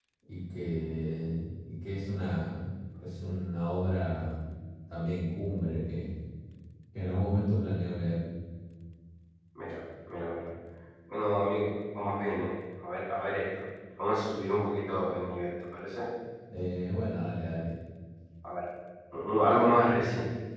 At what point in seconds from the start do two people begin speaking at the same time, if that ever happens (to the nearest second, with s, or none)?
none